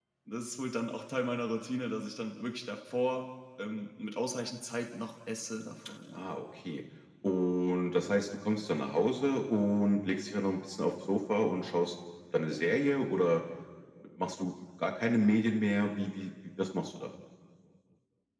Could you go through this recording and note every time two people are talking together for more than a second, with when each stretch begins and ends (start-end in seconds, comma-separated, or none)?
none